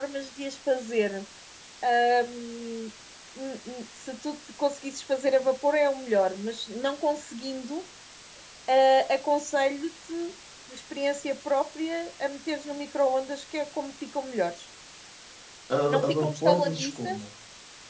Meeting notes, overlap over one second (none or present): present